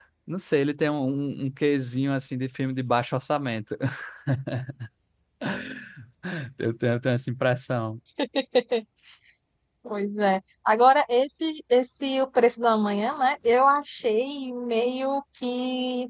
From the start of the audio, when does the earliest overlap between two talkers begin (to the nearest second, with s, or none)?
none